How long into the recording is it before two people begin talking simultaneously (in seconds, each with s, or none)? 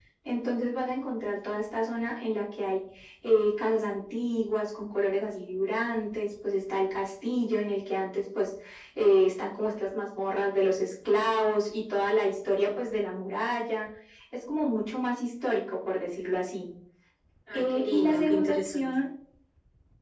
17.5 s